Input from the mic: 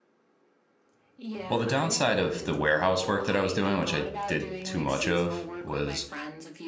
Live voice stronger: Yes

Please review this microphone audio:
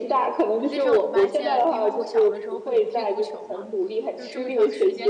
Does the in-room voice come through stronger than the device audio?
No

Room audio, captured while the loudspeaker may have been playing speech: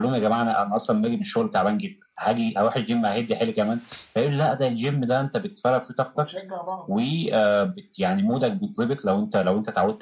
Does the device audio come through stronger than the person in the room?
Yes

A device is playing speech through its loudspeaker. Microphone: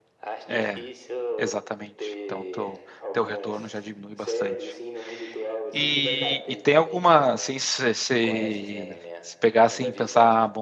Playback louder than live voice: No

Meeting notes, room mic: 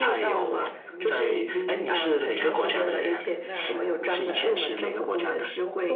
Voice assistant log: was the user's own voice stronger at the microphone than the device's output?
No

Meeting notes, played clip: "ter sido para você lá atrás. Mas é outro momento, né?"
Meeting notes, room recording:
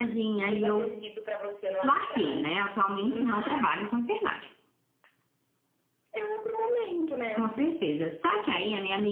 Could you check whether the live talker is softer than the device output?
No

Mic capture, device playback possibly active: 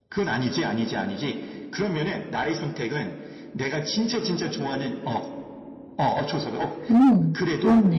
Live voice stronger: Yes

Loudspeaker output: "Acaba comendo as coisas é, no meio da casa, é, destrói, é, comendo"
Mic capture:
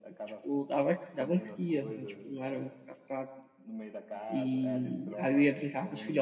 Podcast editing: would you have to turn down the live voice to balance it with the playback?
Yes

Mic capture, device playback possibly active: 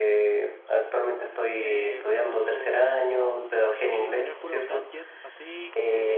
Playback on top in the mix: Yes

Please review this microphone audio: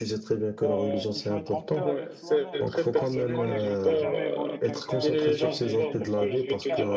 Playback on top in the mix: Yes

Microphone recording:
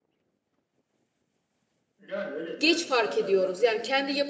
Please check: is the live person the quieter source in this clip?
No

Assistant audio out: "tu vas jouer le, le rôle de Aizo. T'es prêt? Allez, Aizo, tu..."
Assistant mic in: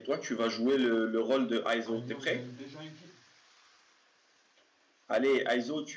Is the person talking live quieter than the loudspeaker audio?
Yes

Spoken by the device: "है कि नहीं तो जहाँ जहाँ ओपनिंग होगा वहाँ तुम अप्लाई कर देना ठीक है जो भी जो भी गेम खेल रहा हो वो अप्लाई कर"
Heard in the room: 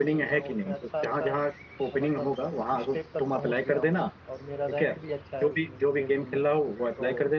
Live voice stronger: No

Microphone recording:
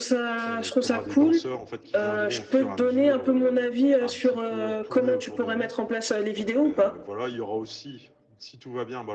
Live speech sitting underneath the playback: Yes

